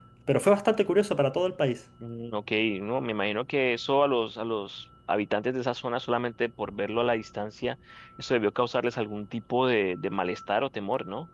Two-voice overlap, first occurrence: none

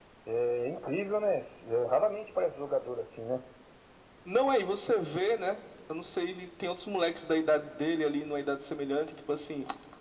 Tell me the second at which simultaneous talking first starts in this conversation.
none

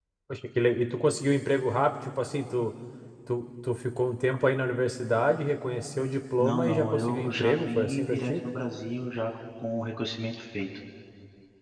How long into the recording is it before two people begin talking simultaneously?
6 s

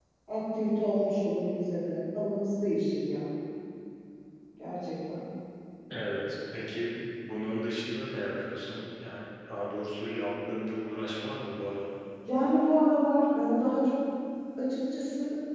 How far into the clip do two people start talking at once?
none

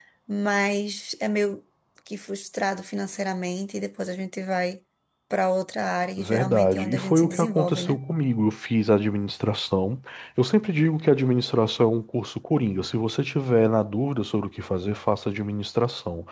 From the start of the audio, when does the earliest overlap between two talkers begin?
6 s

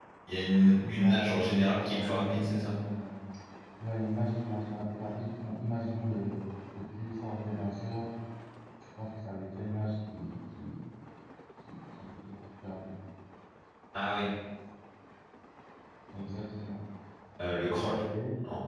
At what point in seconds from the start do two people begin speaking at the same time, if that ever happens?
1 s

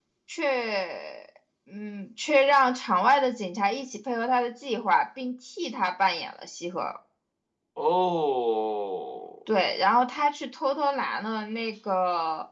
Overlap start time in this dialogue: none

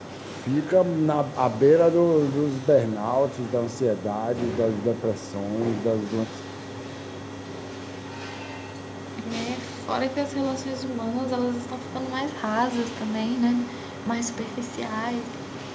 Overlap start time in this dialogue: none

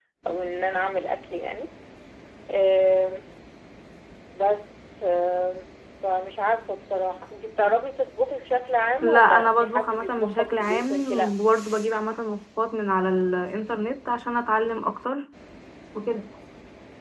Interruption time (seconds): 9 s

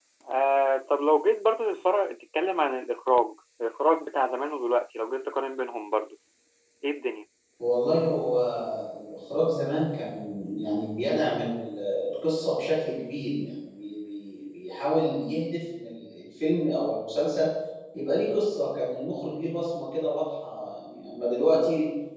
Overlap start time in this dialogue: none

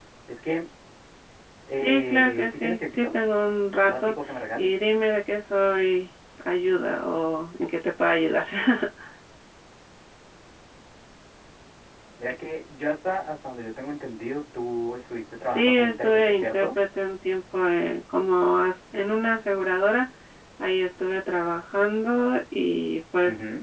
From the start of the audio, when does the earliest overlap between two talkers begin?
2 s

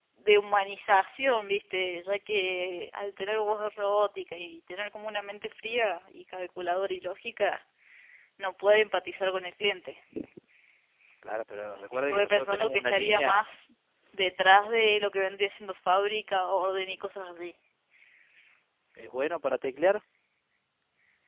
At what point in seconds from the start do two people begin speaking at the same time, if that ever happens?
12 s

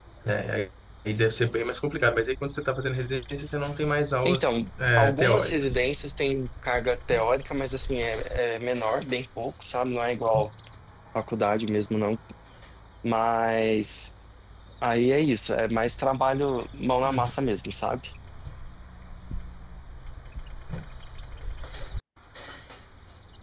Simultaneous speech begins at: 4 s

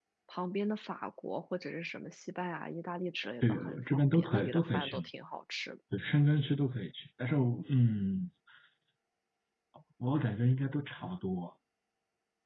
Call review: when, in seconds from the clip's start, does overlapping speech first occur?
3 s

